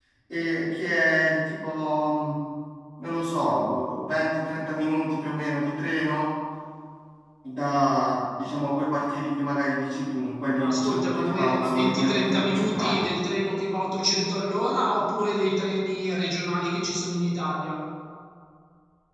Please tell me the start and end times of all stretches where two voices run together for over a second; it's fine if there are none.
10.6-13.0

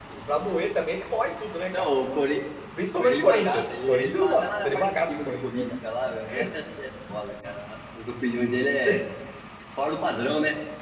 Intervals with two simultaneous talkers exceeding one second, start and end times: 2.9-5.7

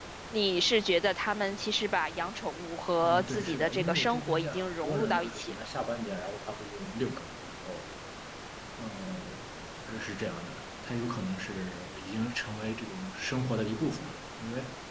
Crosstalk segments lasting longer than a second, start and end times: 3.0-5.5

